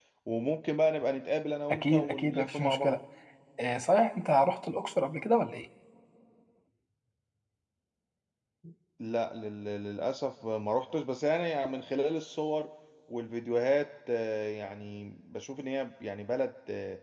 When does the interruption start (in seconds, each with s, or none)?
1.7 s